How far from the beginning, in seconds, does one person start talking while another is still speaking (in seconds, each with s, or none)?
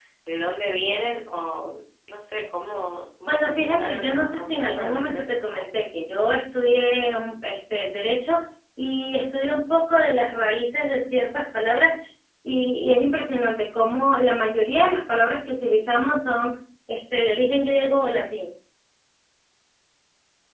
3.3 s